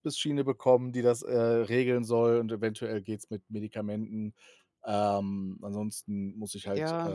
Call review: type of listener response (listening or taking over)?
taking over